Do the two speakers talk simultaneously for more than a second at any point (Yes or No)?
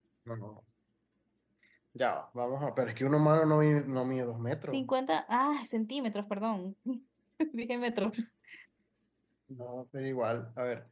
No